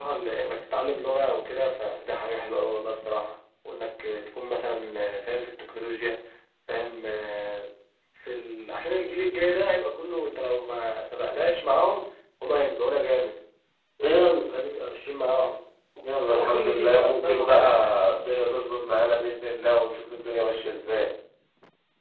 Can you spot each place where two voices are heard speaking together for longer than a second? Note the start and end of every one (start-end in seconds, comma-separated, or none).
16.3-17.6